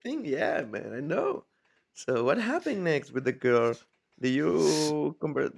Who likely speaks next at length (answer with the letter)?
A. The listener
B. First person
B